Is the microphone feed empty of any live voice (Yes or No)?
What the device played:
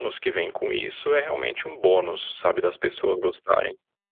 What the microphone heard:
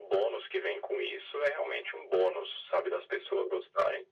Yes